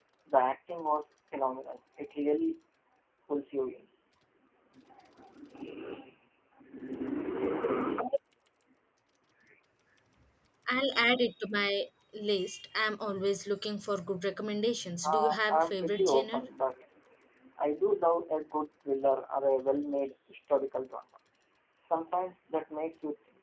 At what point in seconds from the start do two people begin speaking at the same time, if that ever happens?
15.0 s

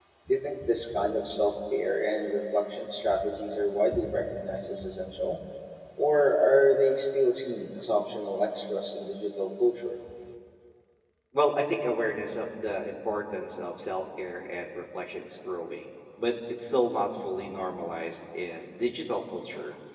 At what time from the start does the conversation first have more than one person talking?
none

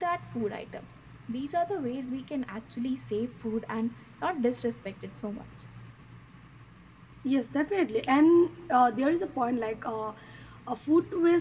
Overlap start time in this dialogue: none

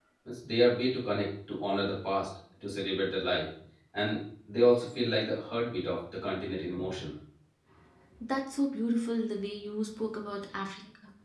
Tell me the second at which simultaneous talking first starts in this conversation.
none

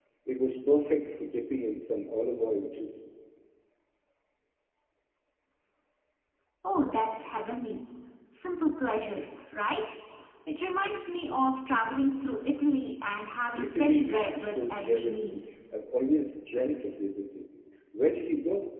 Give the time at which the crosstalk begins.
13.6 s

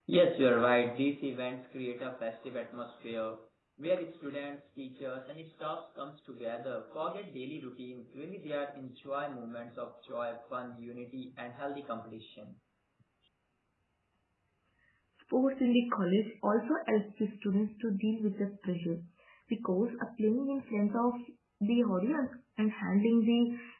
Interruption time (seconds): none

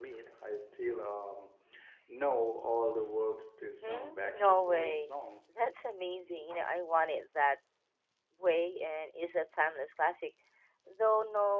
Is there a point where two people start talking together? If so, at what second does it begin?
3.8 s

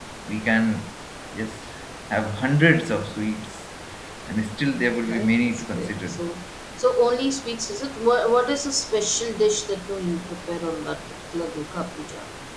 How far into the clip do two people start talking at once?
4.8 s

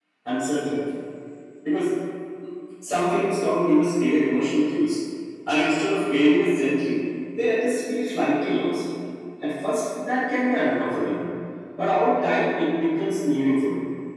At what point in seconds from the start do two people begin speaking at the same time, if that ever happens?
none

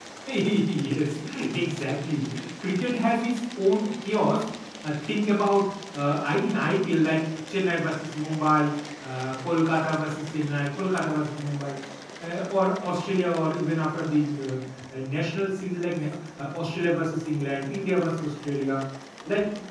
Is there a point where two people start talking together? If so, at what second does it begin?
none

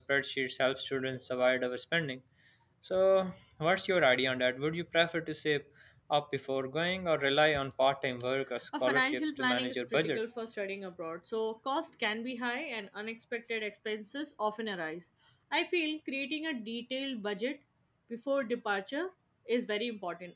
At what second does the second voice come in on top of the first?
8.7 s

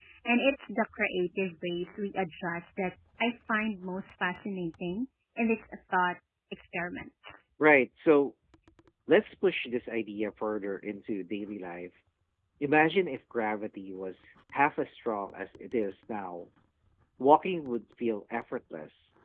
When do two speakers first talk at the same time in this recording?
none

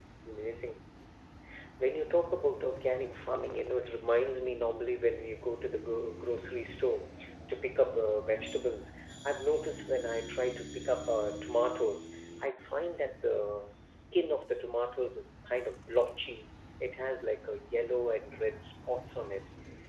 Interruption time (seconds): none

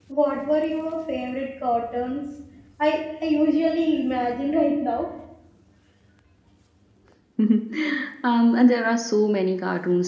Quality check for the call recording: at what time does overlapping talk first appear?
none

